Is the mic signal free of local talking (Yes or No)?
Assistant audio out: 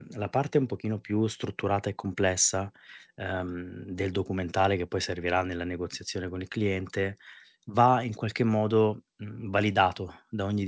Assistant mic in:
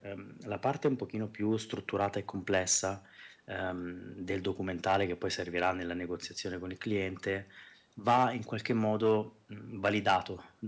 Yes